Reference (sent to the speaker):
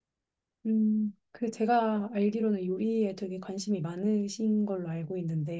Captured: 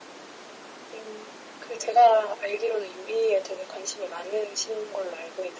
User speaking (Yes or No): No